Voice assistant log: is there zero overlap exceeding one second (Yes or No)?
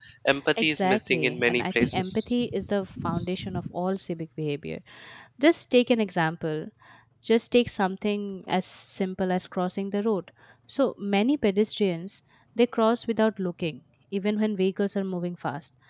No